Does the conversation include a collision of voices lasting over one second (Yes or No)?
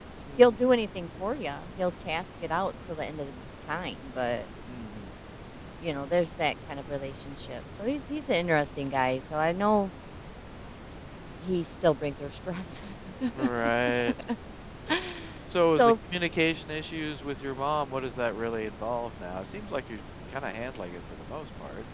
No